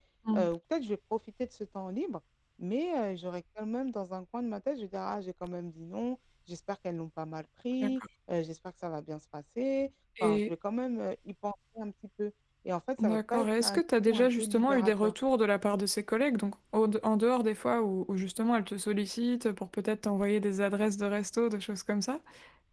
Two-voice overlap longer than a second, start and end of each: 13.0-15.1

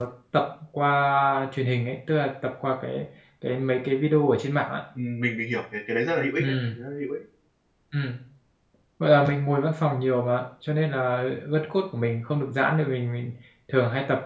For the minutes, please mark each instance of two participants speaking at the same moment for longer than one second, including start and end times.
none

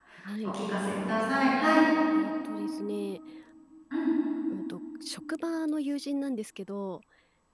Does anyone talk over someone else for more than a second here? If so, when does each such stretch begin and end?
none

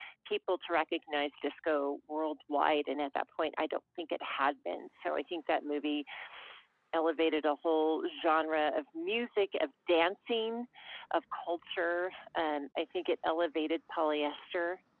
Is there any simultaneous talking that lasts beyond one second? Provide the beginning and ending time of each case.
none

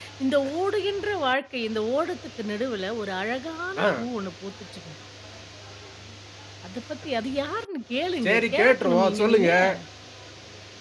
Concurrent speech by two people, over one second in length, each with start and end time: 8.2-9.5

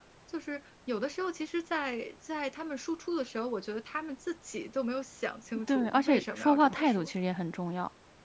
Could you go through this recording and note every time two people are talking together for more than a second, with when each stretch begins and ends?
5.7-7.1

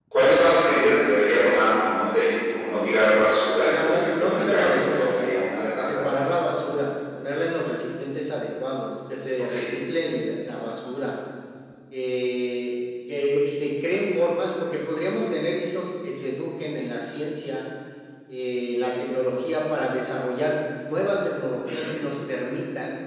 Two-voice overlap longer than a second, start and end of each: 3.6-5.4

